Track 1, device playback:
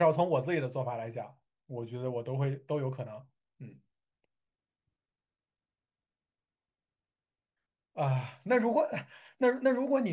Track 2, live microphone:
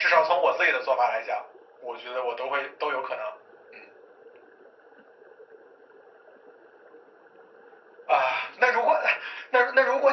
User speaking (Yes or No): No